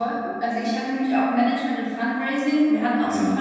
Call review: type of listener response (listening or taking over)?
listening